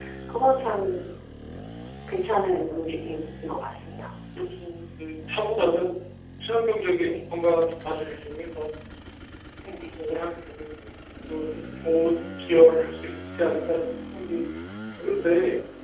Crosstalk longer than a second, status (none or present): none